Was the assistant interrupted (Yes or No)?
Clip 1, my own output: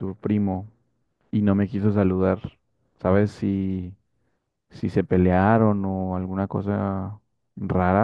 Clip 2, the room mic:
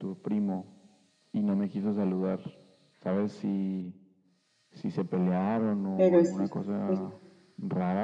Yes